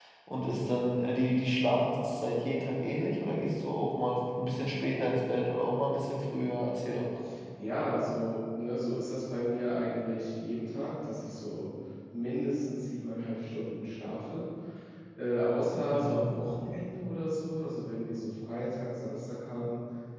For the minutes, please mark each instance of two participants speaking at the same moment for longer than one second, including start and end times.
none

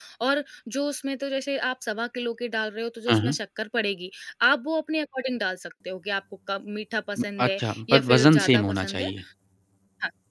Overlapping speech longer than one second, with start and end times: 7.5-9.1

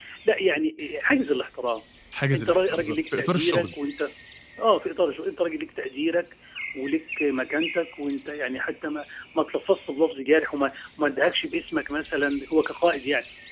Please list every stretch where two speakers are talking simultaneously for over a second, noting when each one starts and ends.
2.3-3.7

